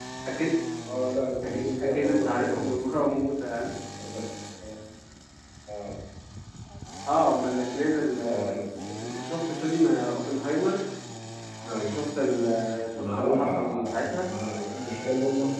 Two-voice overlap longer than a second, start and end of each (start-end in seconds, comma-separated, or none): 1.4-2.9, 13.0-14.3